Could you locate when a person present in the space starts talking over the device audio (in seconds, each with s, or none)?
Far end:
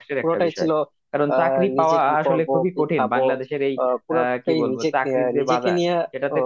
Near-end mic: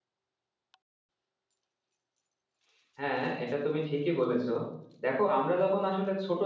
3.0 s